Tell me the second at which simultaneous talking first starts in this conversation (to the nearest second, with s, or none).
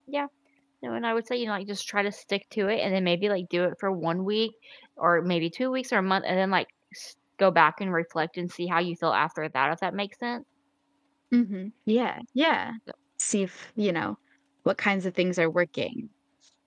none